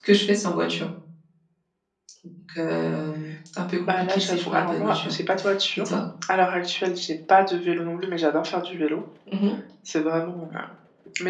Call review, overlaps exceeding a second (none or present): present